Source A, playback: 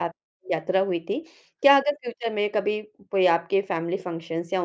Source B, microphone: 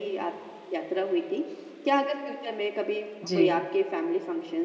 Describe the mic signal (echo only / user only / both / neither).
both